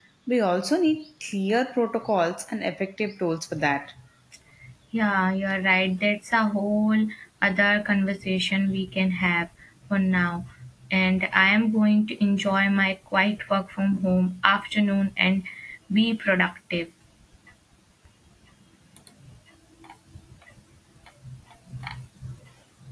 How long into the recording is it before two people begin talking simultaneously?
none

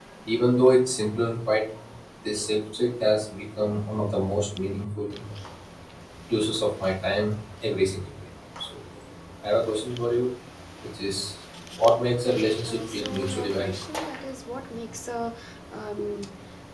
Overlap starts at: 12.5 s

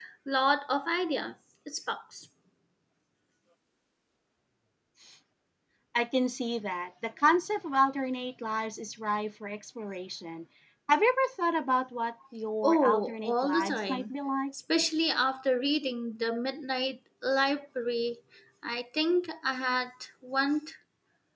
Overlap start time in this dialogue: 12.6 s

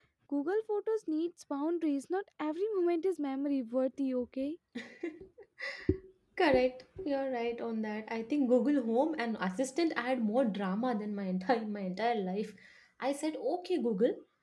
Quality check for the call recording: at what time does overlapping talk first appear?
none

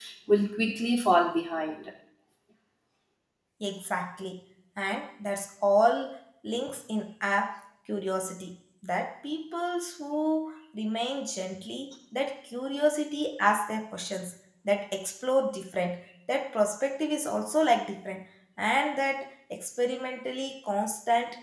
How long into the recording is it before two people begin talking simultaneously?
none

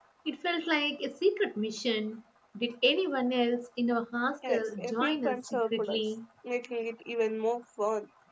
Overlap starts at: 4.4 s

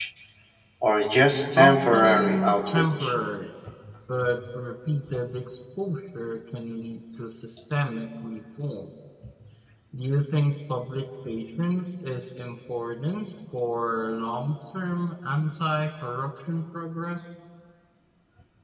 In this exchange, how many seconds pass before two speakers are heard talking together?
1.6 s

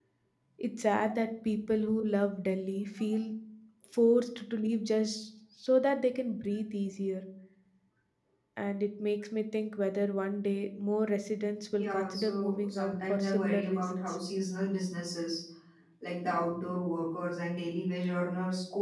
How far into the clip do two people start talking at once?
11.8 s

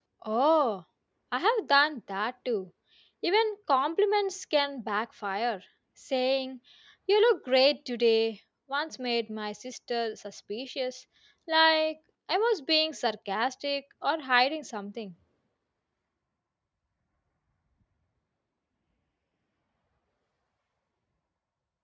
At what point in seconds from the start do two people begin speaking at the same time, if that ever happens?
none

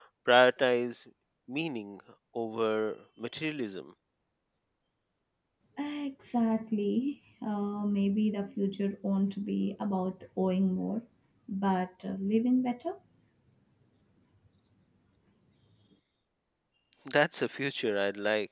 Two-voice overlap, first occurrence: none

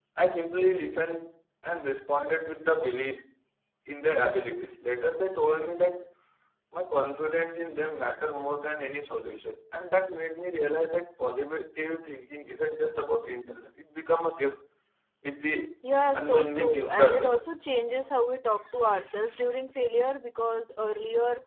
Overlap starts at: 16.1 s

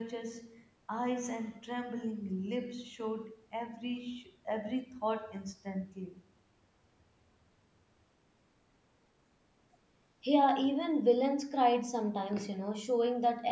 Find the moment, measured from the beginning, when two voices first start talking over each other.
none

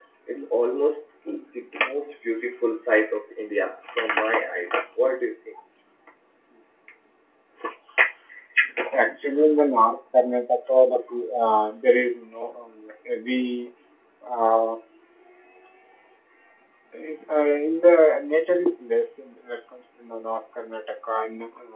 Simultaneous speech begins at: none

